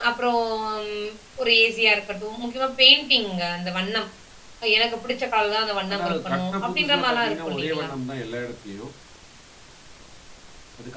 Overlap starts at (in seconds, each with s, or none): 5.9 s